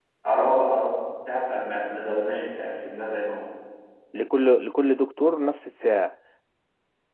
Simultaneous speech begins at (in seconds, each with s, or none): none